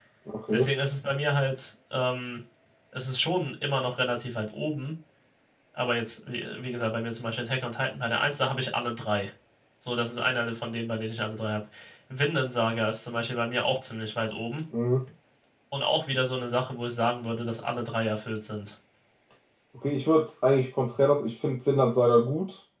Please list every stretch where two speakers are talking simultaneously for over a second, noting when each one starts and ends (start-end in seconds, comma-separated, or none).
none